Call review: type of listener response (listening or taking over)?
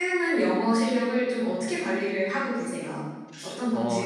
taking over